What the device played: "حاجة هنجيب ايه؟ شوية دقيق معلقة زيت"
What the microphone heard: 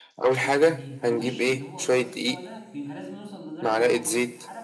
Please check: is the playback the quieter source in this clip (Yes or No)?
No